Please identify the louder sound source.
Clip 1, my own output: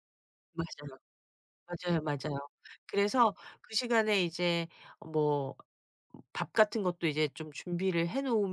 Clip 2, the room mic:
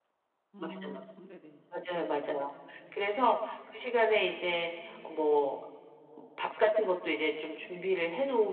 echo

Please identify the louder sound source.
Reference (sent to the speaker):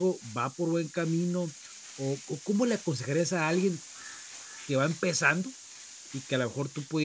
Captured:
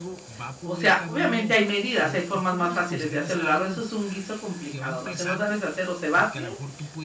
user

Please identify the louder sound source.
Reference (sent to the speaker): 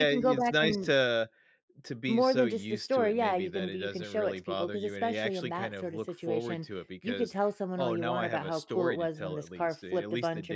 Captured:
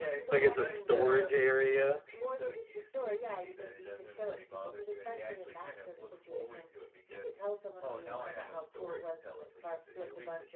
user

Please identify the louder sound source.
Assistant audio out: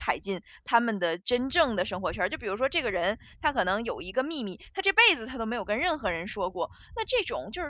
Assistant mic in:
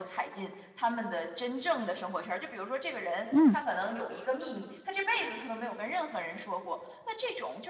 user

